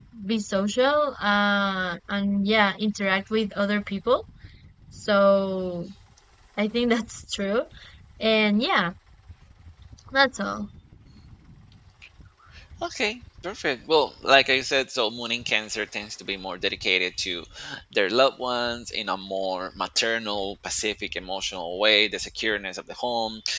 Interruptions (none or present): none